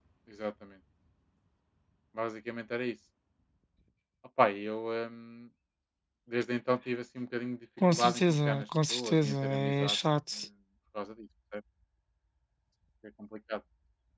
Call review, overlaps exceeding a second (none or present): present